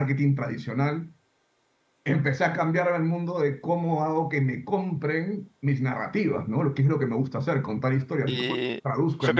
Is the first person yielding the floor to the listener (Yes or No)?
Yes